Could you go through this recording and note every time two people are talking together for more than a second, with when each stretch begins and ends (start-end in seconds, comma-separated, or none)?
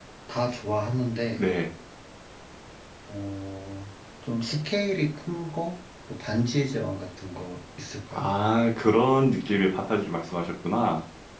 none